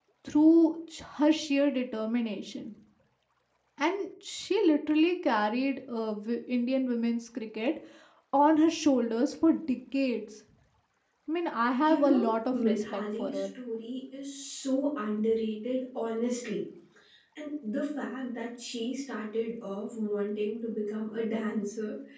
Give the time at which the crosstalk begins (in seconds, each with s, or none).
11.8 s